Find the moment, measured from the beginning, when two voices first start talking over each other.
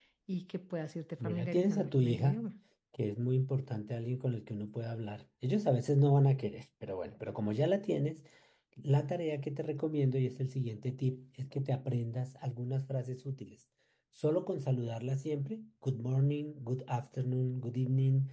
1 s

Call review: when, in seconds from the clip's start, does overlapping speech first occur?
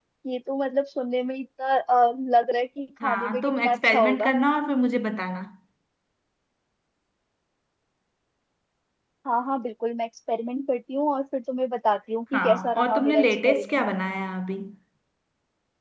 3 s

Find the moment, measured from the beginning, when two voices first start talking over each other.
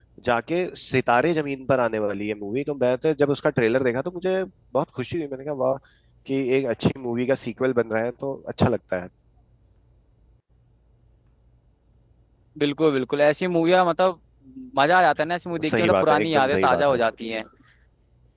16 s

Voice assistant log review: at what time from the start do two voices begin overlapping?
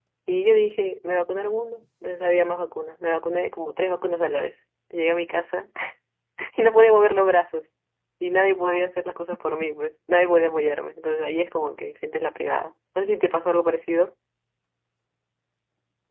none

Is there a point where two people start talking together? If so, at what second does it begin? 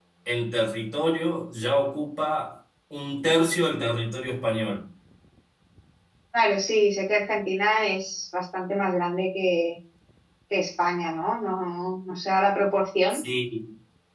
none

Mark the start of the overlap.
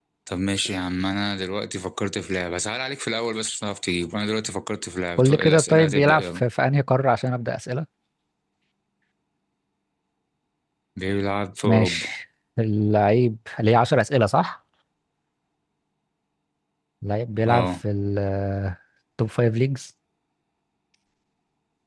5 s

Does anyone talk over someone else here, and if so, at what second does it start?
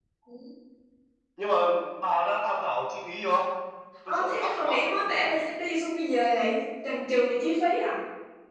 4 s

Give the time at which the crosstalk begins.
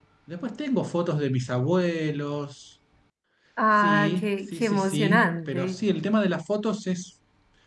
4 s

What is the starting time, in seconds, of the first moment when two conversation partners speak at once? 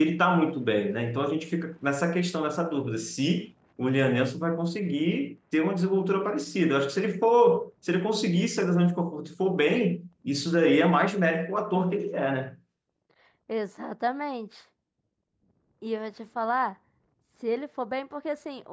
none

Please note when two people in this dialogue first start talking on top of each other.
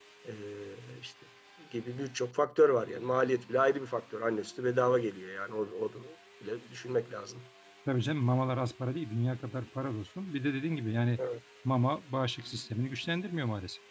none

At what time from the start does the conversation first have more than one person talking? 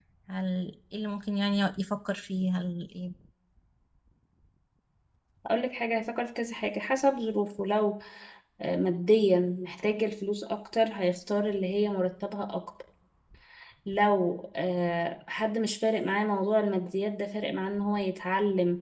none

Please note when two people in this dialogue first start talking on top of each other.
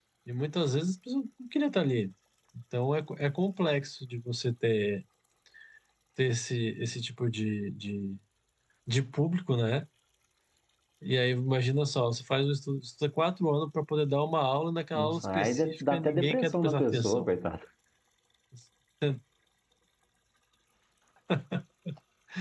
15 s

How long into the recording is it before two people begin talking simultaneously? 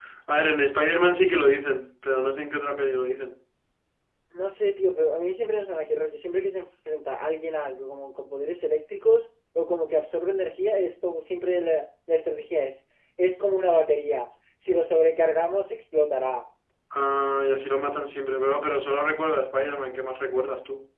none

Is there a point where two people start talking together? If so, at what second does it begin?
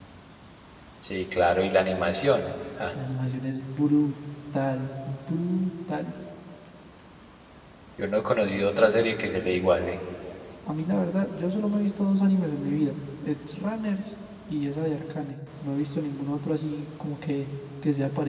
none

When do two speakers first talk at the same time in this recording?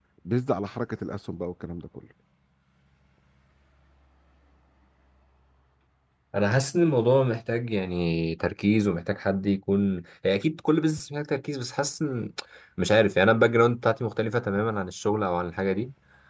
none

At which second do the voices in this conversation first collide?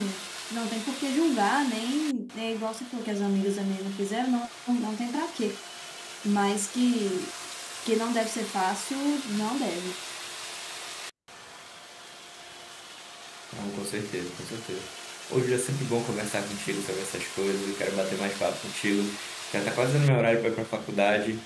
none

